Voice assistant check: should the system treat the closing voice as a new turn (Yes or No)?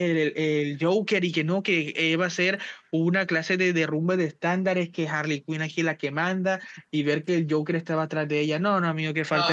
Yes